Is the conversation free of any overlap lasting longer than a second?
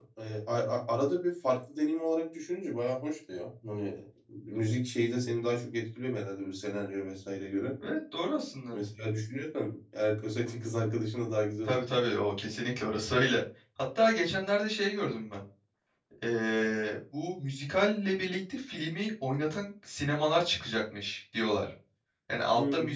Yes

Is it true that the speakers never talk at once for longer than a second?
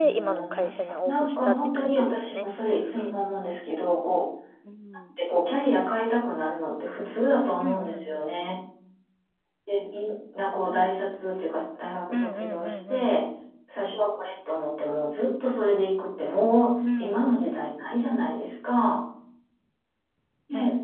No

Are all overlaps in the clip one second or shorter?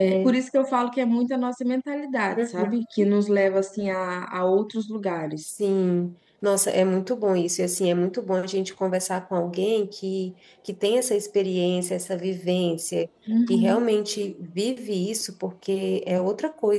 Yes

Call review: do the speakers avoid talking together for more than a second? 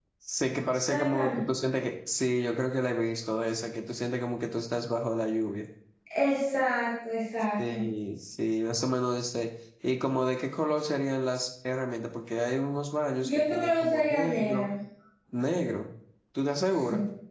No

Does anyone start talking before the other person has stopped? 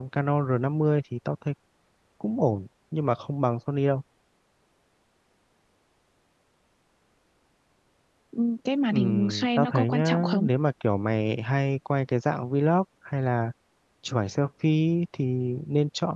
Yes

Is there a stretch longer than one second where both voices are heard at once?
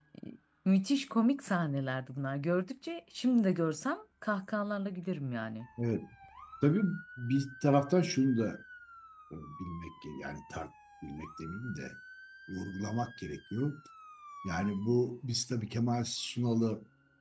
No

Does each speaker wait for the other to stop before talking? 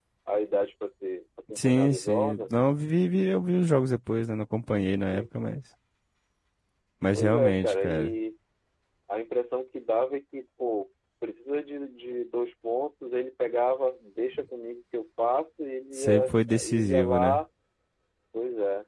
No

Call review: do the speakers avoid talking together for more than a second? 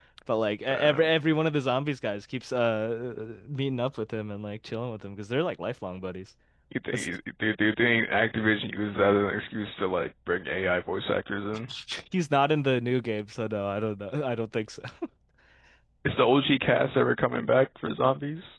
Yes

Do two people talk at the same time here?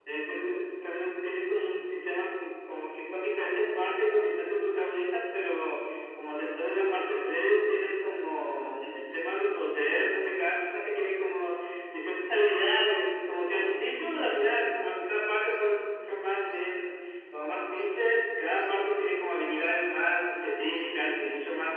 No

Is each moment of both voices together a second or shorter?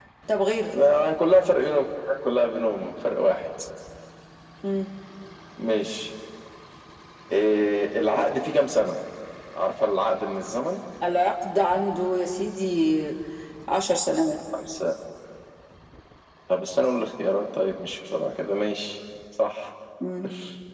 Yes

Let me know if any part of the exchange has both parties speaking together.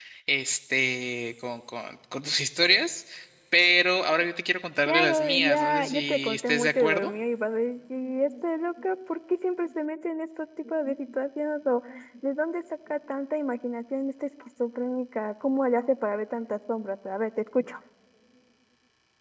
Yes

